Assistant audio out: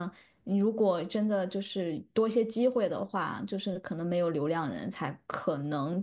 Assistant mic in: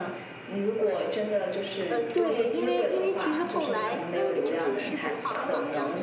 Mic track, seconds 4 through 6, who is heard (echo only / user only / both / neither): both